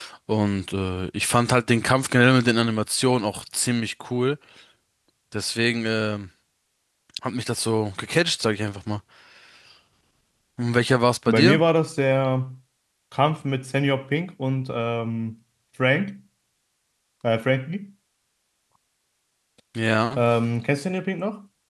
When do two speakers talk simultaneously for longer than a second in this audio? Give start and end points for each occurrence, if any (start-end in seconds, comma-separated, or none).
none